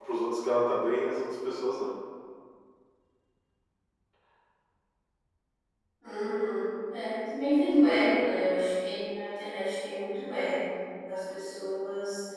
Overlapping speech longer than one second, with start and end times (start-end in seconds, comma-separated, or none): none